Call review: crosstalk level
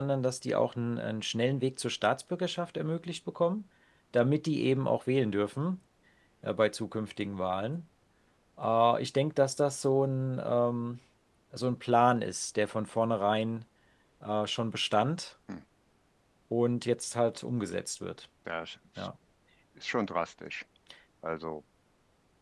none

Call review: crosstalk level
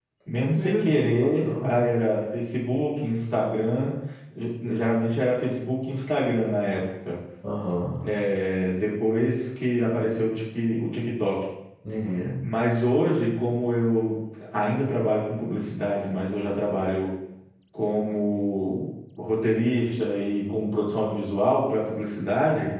present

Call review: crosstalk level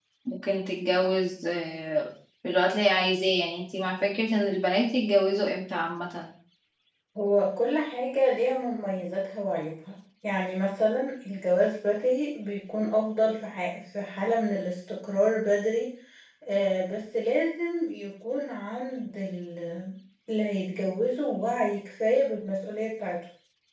none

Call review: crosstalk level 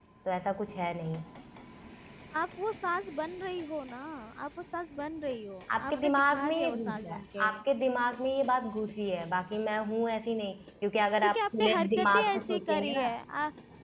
present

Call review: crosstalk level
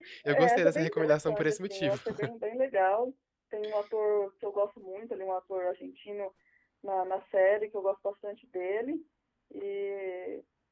present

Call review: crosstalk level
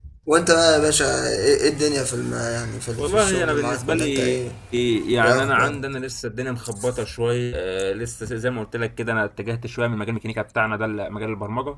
present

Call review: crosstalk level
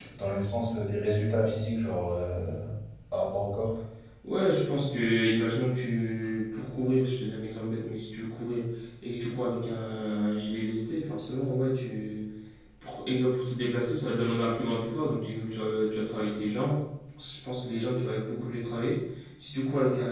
none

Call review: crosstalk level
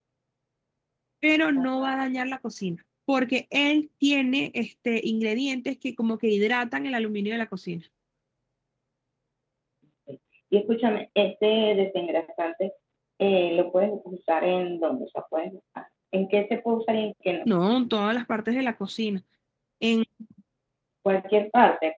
none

